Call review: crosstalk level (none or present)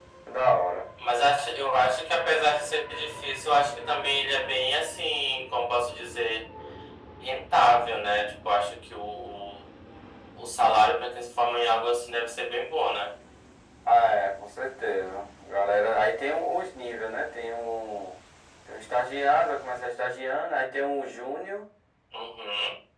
none